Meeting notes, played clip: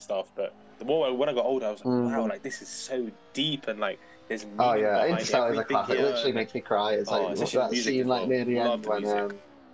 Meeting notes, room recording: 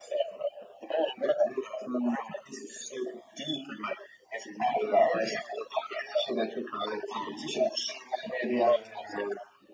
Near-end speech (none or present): present